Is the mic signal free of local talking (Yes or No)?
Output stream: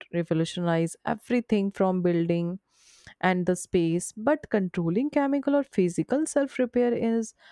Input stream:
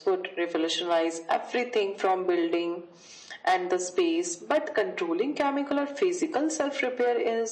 Yes